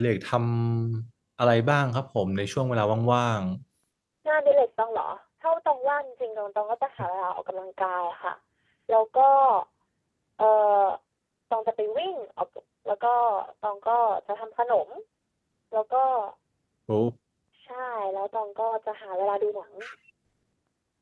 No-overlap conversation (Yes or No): Yes